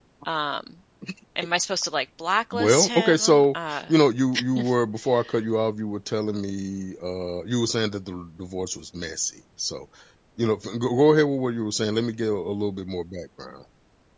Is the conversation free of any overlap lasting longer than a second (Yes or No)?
No